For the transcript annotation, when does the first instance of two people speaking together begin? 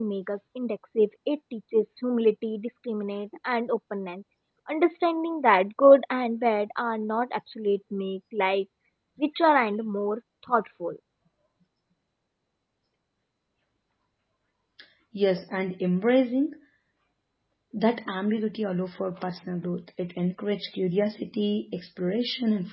none

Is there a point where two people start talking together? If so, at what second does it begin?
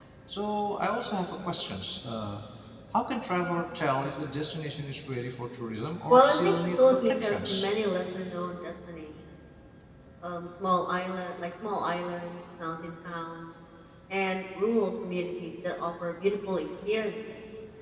6.1 s

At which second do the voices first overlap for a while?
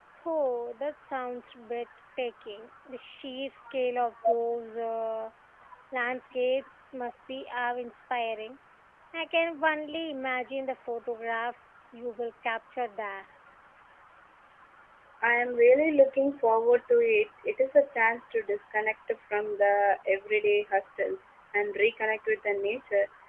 none

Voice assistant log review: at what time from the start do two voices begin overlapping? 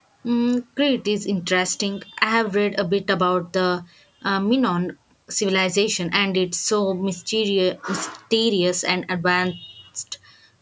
none

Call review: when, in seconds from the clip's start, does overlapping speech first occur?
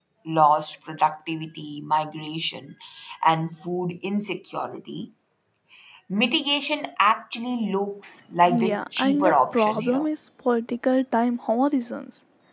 8.4 s

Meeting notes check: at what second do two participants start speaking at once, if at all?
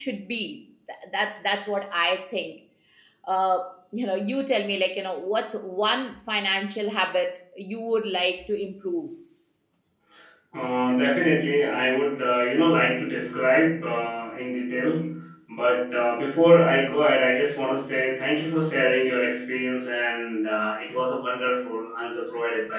none

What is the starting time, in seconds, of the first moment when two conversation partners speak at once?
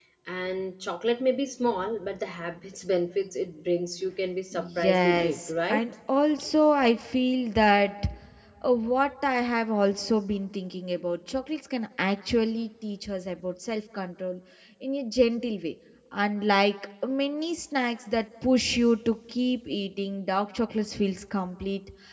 4.5 s

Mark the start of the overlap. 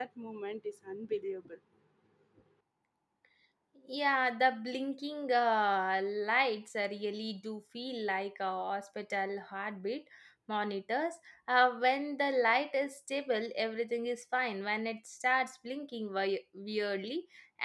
none

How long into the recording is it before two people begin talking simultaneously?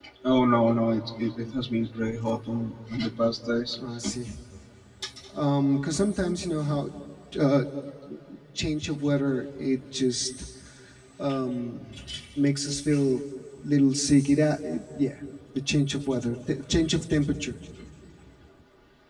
none

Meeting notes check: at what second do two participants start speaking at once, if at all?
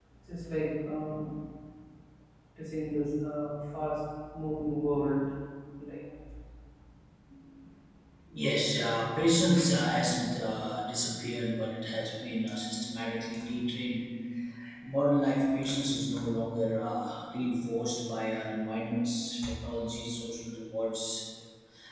none

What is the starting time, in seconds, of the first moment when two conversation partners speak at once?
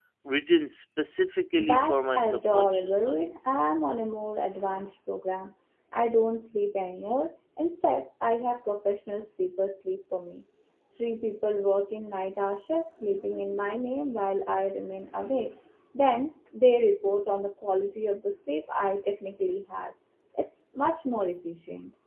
1.6 s

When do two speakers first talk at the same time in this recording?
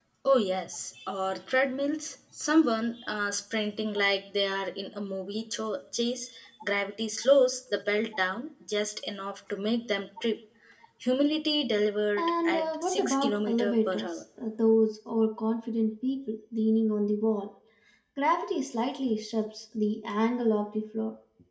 12.2 s

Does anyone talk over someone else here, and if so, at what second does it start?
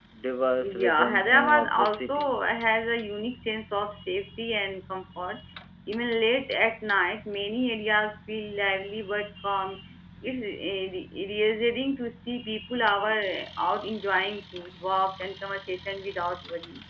0.6 s

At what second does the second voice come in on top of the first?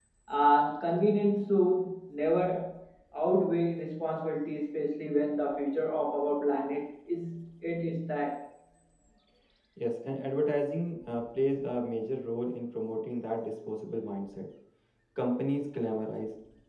none

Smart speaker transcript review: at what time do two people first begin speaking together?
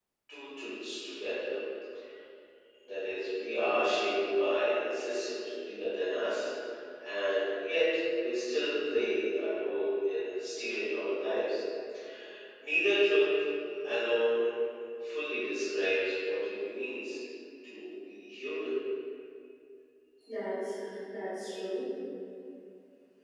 none

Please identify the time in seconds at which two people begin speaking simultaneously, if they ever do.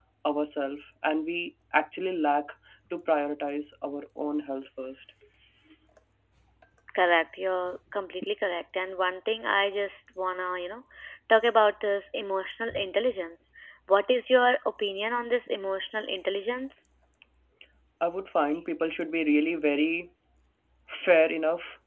none

